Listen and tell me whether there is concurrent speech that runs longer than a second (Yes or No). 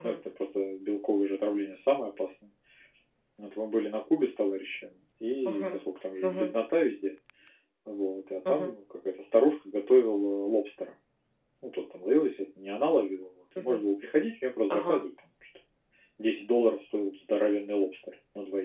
No